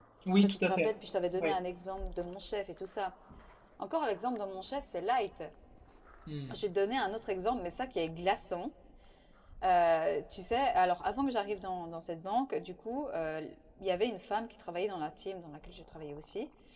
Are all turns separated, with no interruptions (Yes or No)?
No